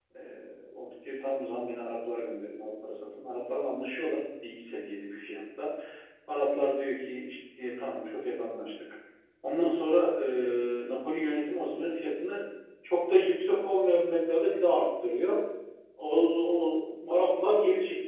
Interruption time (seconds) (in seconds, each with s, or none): none